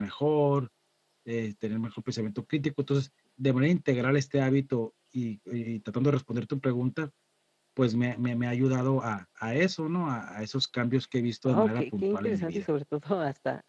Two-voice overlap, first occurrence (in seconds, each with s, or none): 11.4 s